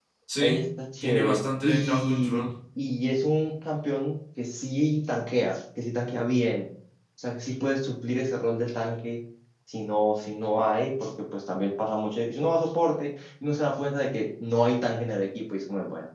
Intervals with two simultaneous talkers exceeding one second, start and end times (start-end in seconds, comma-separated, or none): 1.0-2.4